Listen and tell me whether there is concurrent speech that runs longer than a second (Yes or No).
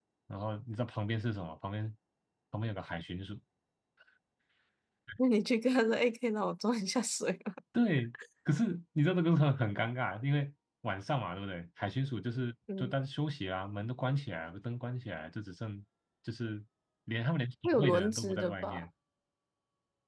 Yes